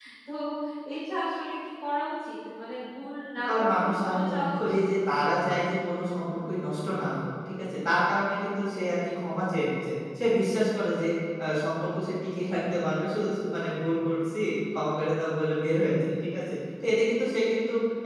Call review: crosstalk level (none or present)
present